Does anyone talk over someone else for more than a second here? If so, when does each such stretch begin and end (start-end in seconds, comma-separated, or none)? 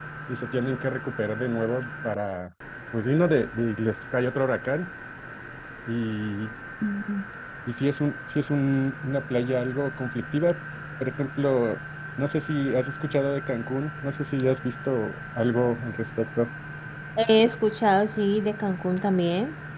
none